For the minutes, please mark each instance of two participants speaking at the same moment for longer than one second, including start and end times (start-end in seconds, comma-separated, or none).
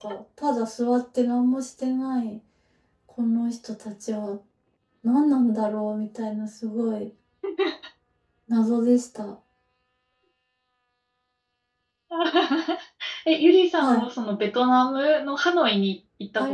none